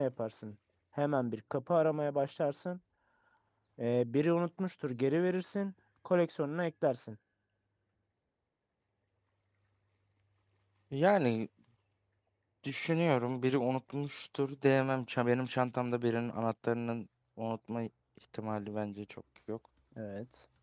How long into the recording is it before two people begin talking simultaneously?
none

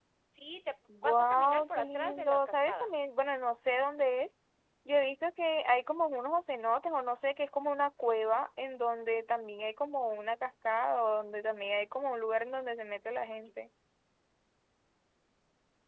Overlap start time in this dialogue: 1 s

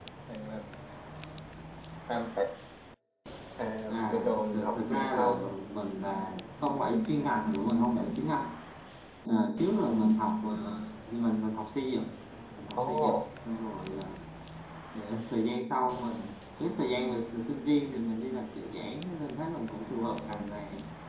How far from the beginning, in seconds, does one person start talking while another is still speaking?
4 s

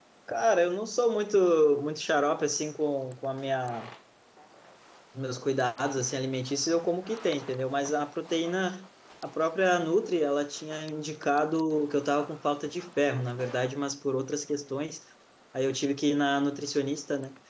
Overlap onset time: none

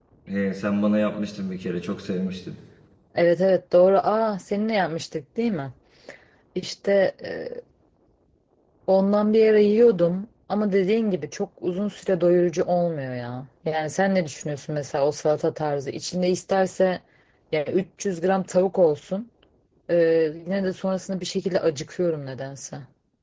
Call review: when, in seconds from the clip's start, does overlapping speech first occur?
none

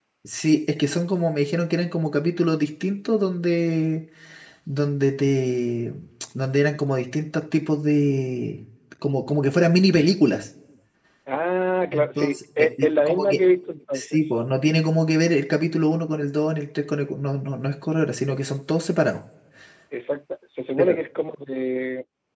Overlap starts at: 12 s

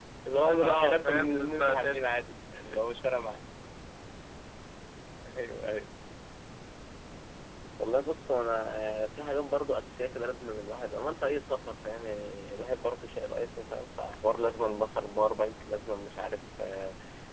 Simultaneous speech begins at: 1 s

